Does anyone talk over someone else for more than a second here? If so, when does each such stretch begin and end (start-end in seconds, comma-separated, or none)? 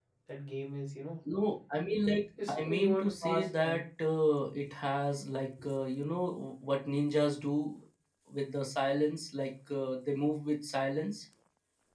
2.5-3.8